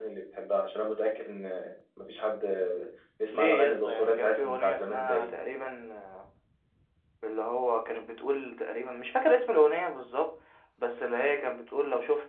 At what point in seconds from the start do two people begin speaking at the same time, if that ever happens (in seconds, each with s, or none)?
3.3 s